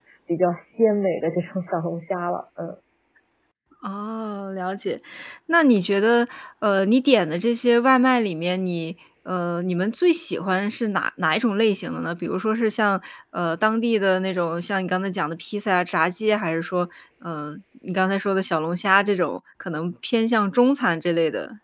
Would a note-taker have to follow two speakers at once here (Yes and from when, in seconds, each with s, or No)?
No